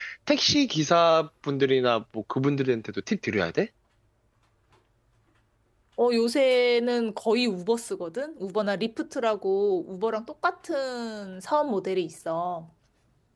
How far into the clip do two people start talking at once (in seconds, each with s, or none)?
none